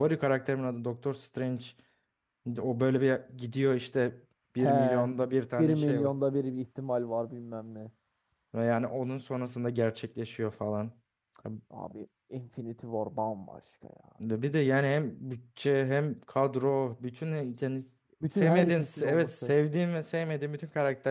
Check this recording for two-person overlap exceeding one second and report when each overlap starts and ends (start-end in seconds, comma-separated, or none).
18.3-19.5